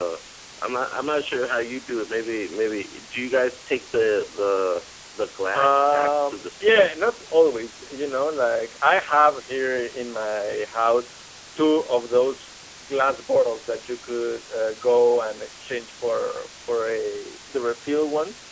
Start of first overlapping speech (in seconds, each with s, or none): 5.5 s